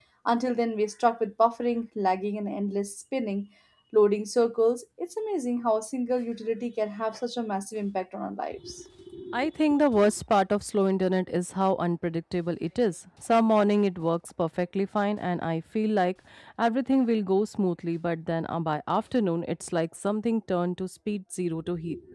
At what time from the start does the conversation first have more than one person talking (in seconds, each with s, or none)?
none